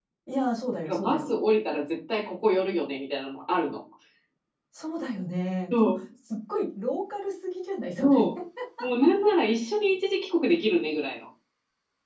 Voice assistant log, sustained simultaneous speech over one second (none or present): none